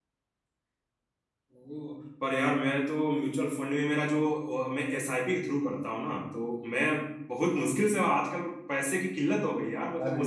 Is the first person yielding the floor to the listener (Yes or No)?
No